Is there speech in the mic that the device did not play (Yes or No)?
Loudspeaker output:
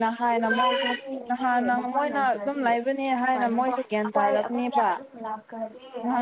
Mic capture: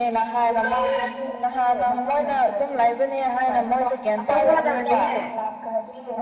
Yes